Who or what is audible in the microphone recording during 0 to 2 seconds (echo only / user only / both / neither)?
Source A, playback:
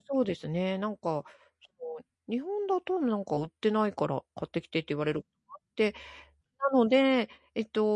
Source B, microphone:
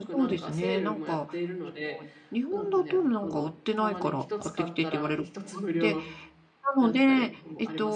both